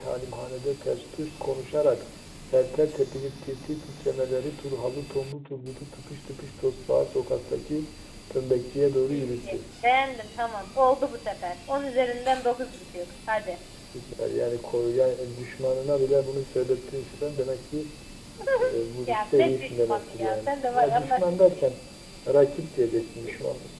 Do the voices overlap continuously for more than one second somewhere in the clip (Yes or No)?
Yes